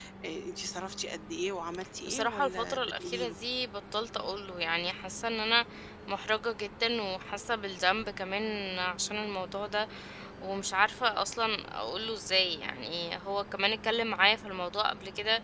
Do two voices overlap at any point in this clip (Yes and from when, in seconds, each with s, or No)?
Yes, from 2.1 s